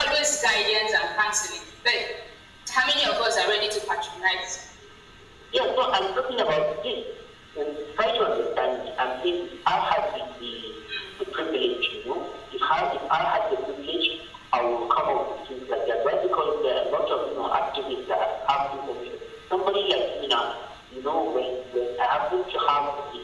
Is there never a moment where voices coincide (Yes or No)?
Yes